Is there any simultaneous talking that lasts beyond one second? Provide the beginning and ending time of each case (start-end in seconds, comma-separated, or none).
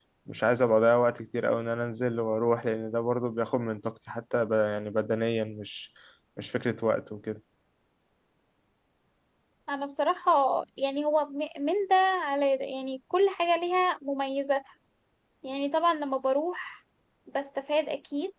none